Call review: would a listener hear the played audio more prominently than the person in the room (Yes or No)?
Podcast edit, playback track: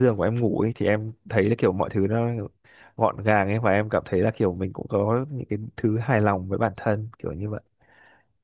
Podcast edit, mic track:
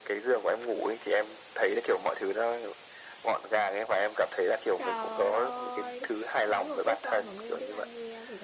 Yes